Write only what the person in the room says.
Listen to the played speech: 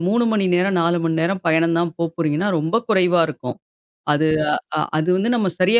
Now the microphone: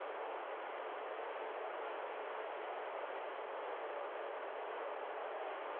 none

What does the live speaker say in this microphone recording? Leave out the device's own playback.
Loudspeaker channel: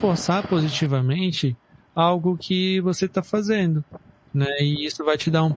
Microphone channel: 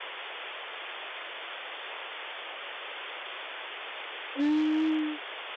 Hum.

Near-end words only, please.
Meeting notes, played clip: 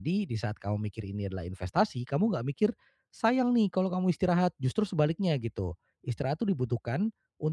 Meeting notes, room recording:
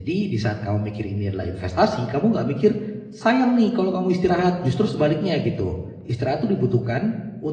none

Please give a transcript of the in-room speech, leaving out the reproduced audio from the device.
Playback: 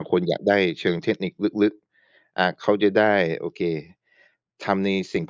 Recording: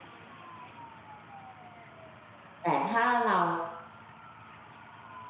แต่ถ้าเรา

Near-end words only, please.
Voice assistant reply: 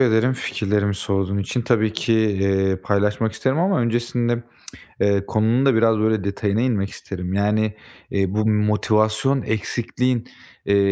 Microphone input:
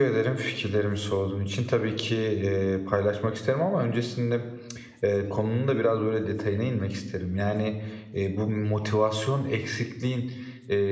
none

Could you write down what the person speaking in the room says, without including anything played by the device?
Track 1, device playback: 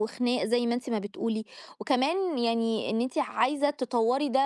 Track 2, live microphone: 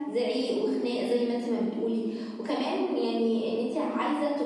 none

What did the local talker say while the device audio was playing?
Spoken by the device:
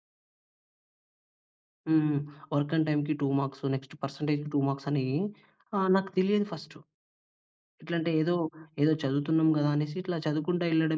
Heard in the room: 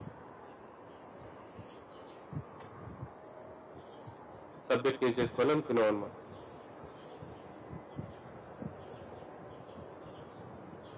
సబ్జెక్ట్ నేర్చేసుకోవాలి అనుకున్నావన్నమాట.

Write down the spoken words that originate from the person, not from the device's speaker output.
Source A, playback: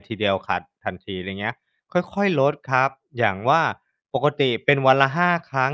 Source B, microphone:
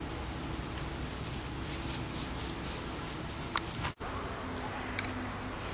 none

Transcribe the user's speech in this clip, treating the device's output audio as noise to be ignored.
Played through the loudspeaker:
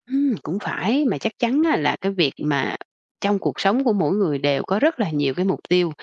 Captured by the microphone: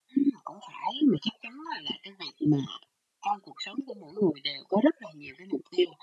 none

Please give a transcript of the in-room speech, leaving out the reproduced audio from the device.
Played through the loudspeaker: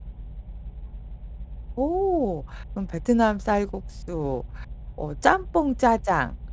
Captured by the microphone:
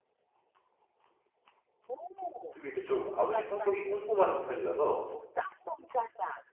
그리고 이제 좀 아버지 성격이 꼼꼼하신 편이라서

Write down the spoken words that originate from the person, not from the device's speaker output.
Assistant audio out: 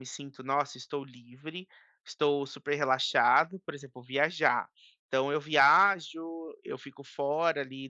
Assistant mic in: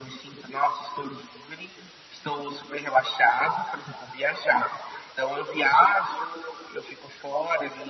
none

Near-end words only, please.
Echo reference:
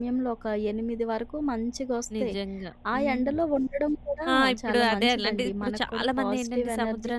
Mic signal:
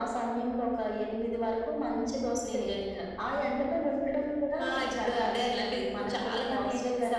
none

